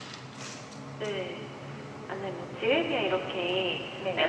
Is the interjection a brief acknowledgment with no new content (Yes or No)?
Yes